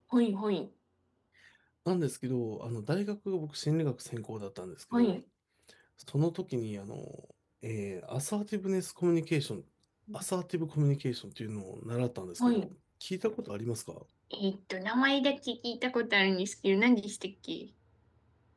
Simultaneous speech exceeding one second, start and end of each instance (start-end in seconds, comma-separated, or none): none